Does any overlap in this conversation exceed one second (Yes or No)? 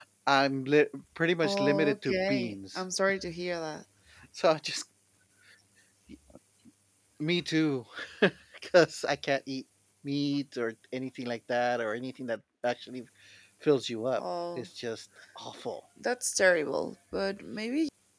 Yes